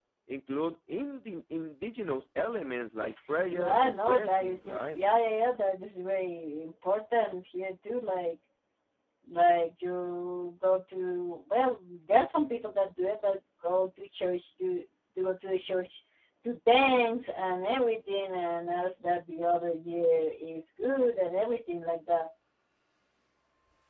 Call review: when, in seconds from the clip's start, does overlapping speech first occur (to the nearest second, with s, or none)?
4 s